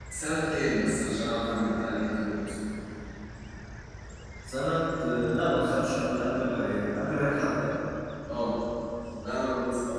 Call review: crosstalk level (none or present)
none